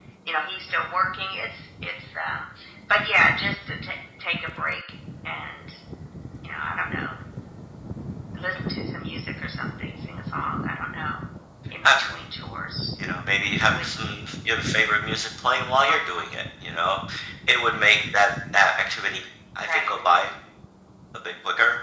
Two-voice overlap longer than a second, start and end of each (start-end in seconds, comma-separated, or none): none